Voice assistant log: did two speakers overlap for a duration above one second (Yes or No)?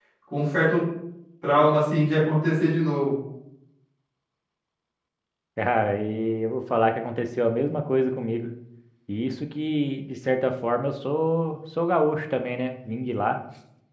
No